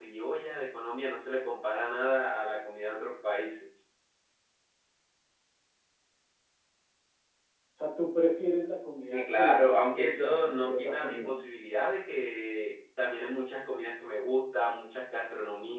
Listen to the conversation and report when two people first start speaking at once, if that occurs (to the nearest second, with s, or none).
9 s